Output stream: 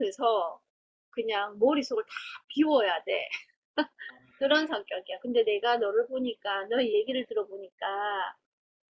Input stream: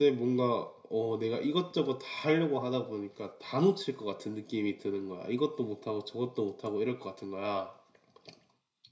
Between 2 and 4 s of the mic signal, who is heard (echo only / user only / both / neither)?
user only